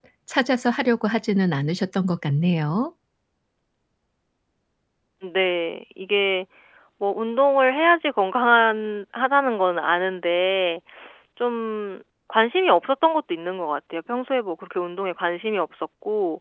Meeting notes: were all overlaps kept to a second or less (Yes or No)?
Yes